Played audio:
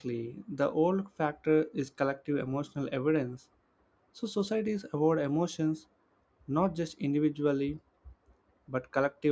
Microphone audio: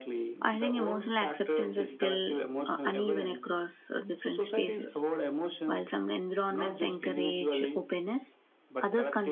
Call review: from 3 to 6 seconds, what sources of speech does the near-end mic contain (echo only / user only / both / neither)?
both